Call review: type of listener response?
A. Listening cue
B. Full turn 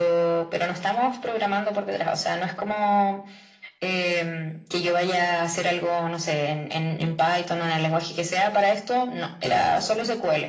A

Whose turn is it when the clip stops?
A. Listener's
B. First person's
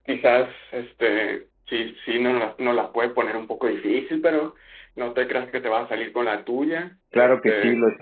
A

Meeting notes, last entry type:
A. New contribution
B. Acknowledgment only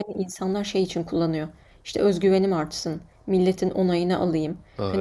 B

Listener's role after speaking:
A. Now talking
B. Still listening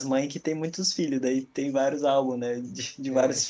B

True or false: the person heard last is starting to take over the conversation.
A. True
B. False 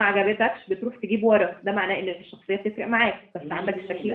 A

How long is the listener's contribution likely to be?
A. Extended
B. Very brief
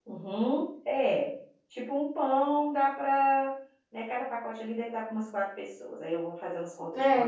A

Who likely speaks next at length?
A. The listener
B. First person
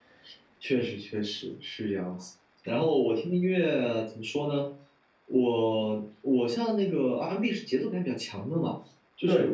B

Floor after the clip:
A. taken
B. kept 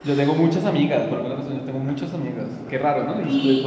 A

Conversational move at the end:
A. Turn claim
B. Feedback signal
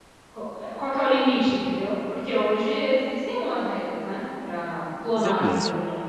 A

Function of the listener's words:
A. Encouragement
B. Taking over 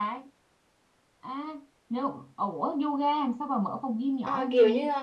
B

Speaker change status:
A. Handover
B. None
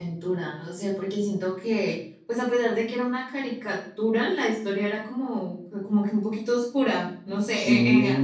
B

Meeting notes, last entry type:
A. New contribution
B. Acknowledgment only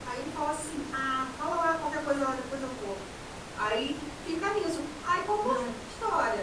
B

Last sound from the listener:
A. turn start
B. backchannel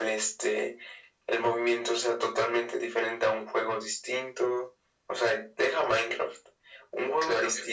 B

